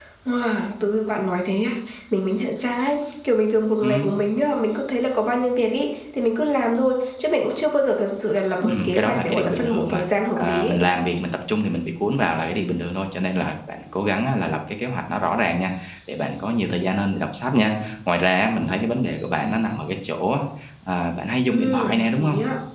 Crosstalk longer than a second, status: present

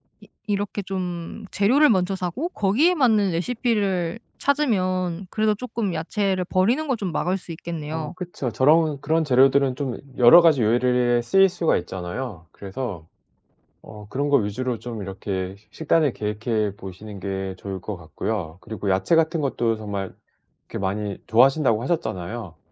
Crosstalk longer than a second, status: none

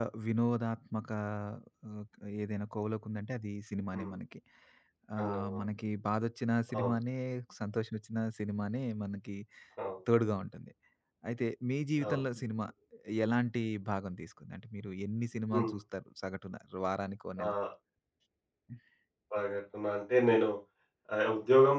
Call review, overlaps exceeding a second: none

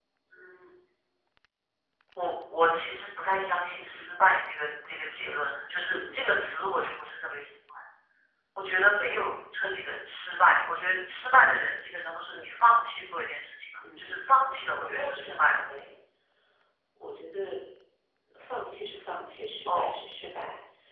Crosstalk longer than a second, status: present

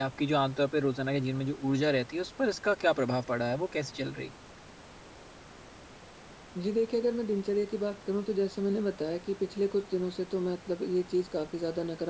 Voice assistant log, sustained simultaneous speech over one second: none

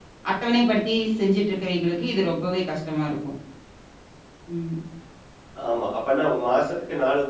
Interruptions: none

